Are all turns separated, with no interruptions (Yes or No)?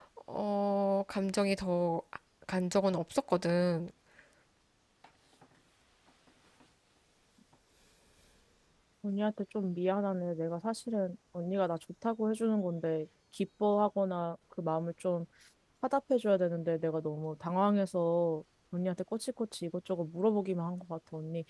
Yes